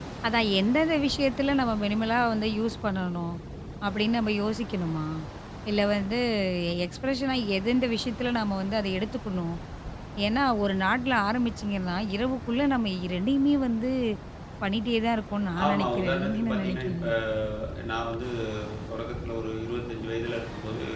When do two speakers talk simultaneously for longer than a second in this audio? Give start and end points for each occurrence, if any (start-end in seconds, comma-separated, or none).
15.7-17.1